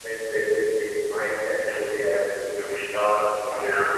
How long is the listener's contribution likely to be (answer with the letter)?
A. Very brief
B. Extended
A